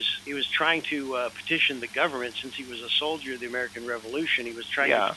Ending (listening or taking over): listening